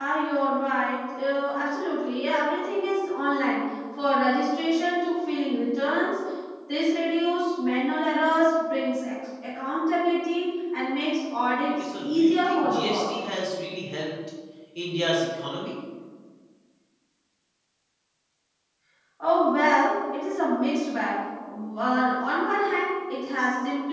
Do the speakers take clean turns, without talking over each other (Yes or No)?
No